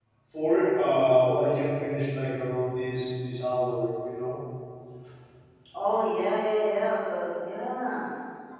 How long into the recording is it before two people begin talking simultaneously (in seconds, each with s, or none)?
none